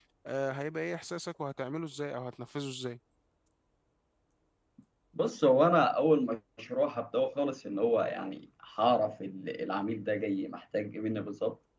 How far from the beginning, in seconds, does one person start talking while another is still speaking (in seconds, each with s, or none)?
none